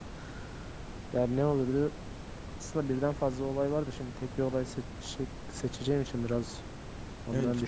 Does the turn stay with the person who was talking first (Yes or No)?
No